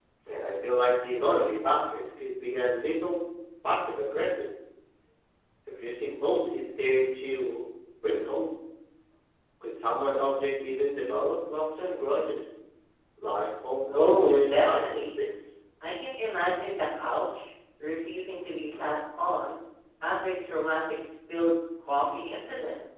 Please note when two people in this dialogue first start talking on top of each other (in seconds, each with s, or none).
13.9 s